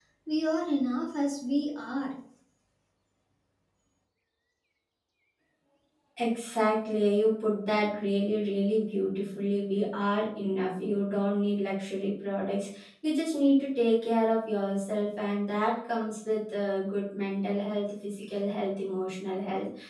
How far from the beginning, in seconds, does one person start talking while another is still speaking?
none

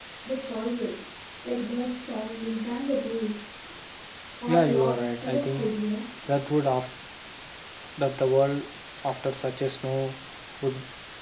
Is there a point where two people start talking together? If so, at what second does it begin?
4 s

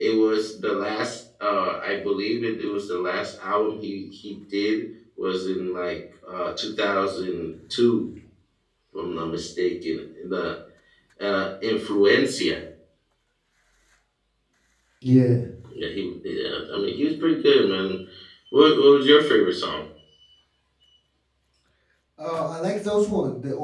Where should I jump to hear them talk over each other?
none

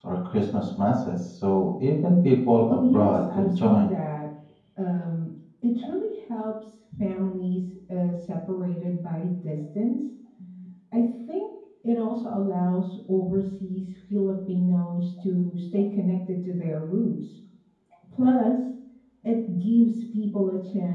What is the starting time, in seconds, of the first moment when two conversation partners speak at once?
3 s

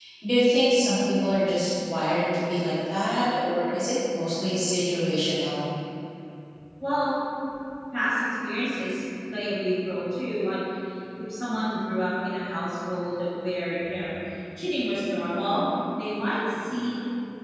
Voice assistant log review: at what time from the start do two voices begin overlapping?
none

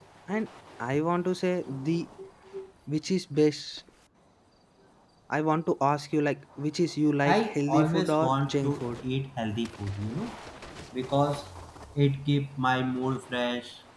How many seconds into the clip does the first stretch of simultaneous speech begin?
7 s

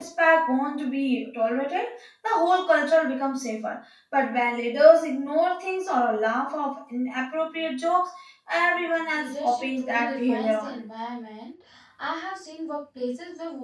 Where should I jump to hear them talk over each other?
9 s

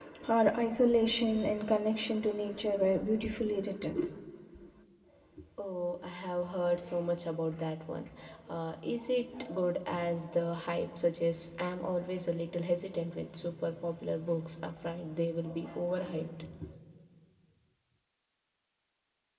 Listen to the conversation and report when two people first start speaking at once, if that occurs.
none

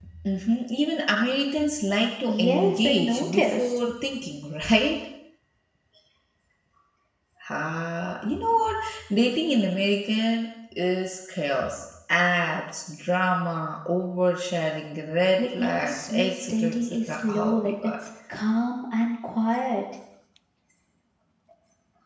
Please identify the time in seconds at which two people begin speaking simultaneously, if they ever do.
2 s

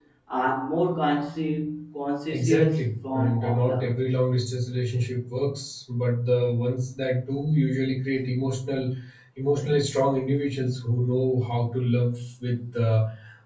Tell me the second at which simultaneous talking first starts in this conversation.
2 s

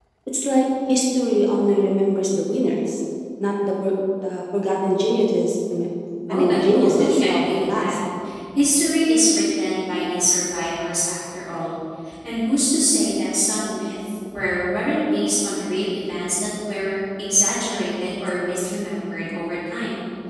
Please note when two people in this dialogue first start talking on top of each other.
6 s

